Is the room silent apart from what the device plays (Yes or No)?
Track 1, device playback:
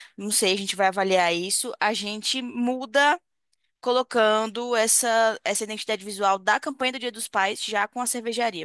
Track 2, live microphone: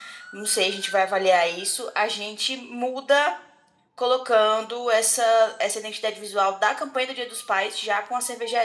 Yes